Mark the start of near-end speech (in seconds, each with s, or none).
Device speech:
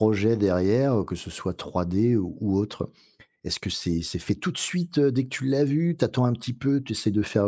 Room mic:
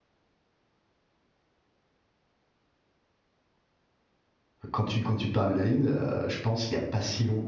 4.7 s